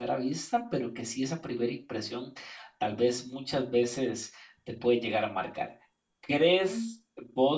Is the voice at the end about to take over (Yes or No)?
No